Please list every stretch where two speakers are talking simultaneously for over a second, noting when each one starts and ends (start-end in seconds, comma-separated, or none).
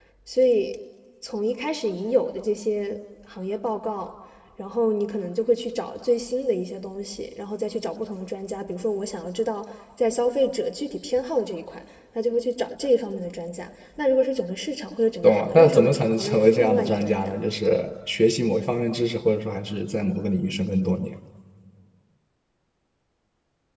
15.2-17.3